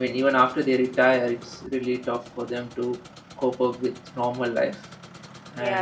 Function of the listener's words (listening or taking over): taking over